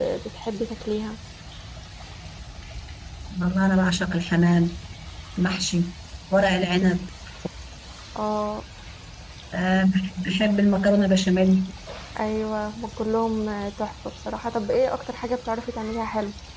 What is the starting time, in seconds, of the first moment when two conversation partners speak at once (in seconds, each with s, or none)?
none